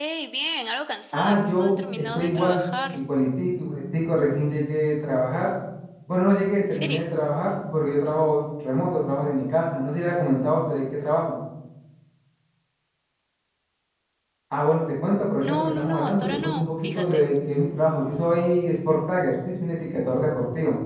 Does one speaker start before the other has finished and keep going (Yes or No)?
Yes